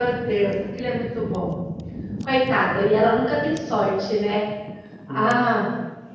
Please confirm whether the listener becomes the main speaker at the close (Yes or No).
No